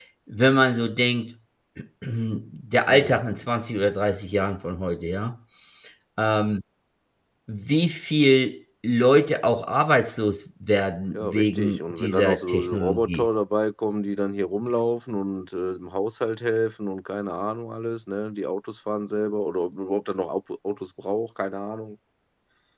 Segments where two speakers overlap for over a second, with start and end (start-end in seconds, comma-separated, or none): 11.1-13.3